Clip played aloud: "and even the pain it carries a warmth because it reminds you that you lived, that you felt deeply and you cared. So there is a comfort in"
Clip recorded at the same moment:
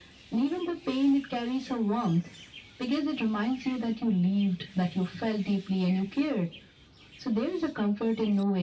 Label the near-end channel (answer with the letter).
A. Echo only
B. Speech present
A